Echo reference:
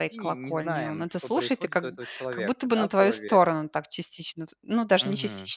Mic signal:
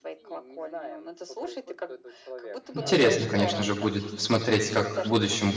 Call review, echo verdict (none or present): present